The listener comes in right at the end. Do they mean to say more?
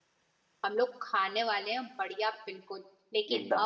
No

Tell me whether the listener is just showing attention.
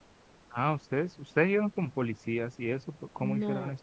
No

